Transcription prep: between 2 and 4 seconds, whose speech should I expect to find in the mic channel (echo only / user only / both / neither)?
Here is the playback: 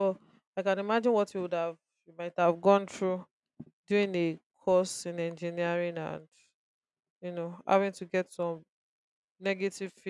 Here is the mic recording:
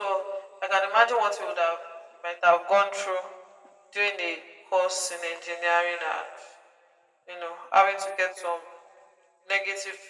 echo only